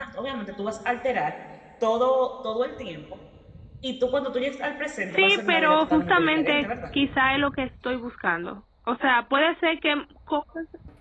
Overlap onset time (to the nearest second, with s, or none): 5 s